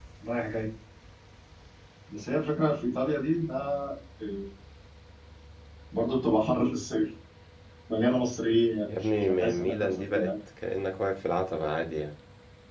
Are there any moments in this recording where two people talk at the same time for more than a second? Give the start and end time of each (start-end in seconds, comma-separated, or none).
8.9-10.3